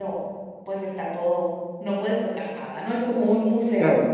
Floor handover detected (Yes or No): Yes